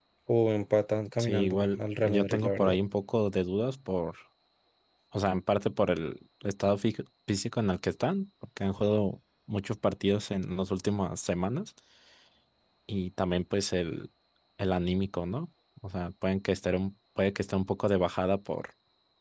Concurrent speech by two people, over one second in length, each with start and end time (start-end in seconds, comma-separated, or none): 1.2-2.8